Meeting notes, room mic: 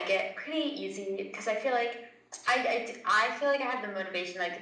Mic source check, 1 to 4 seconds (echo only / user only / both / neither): echo only